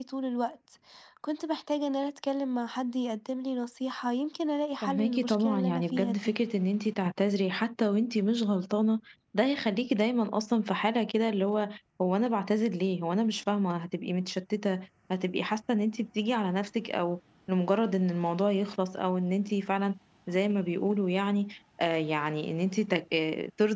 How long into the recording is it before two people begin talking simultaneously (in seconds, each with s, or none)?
4.8 s